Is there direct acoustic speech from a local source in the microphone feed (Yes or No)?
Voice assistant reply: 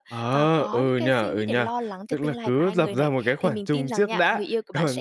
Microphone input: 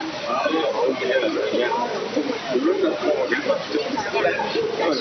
No